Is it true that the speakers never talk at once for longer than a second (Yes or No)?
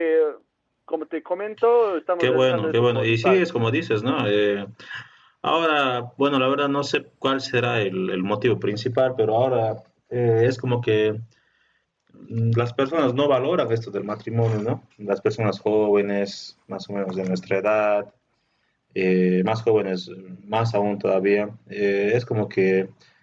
No